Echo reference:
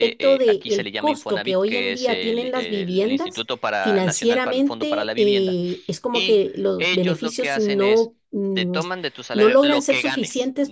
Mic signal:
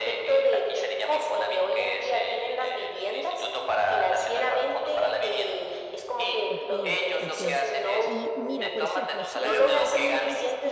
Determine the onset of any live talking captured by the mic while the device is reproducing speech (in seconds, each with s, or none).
6.4 s